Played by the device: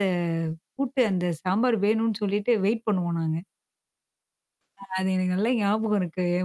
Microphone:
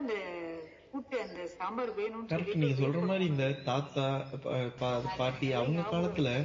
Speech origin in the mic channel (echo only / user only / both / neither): both